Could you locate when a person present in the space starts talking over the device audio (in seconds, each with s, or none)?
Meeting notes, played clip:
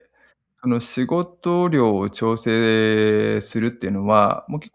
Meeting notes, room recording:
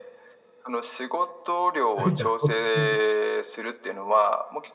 1.9 s